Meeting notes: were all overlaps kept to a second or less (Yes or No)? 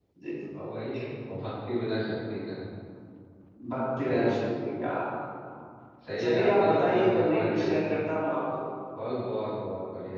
No